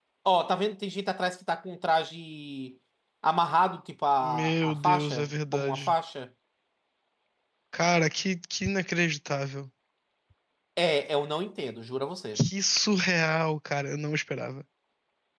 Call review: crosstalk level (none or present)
present